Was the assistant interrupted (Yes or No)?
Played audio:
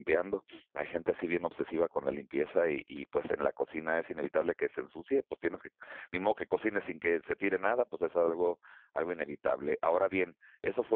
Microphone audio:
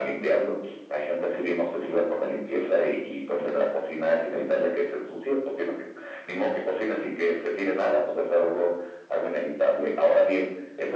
No